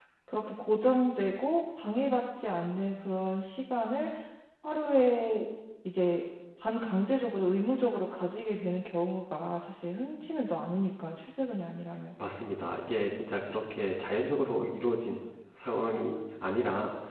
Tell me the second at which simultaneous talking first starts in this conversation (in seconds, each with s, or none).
none